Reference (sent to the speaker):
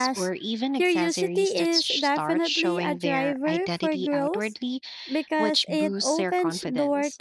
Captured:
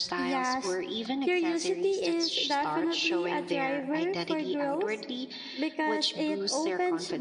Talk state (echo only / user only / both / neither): echo only